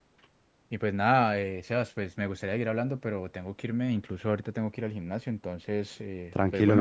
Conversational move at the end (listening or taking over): taking over